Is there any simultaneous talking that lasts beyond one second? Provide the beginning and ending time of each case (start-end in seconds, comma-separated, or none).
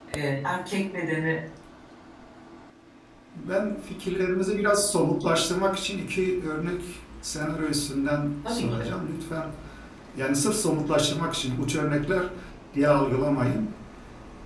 none